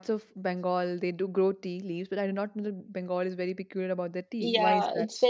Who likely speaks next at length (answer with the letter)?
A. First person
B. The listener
B